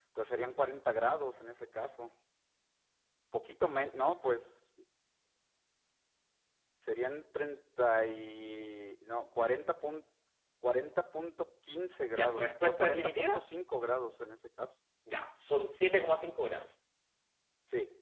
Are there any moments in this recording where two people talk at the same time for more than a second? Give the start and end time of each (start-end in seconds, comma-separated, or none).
12.2-13.4